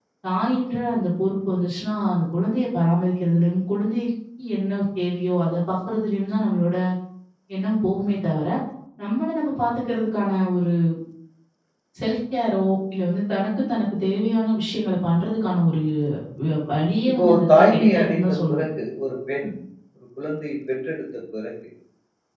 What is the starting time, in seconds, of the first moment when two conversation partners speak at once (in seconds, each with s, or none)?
17.1 s